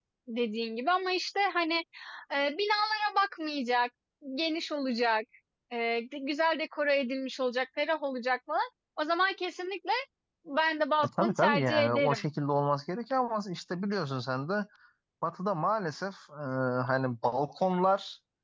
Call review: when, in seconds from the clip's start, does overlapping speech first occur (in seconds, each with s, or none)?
11.0 s